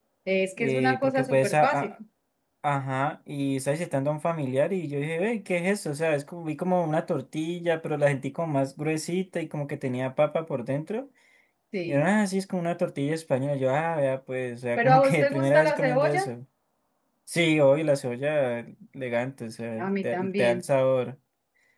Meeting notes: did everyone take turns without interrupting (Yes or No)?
No